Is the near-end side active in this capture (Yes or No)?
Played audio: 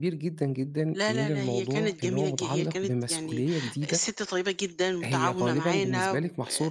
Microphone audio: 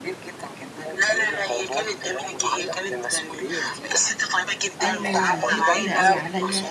Yes